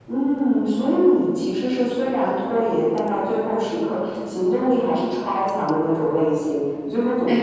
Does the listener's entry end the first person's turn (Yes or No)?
Yes